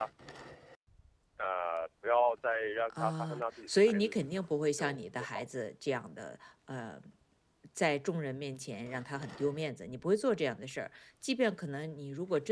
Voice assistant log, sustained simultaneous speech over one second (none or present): present